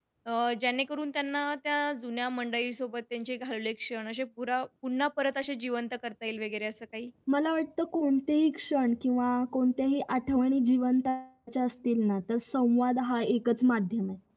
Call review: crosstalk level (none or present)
none